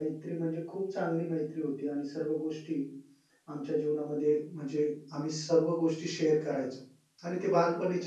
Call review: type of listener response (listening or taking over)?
taking over